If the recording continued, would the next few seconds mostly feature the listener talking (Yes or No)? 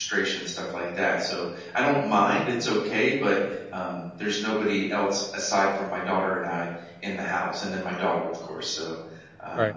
Yes